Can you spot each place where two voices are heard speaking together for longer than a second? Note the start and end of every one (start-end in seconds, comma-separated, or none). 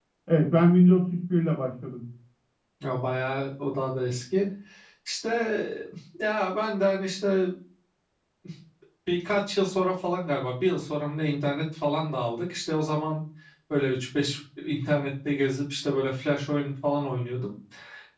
none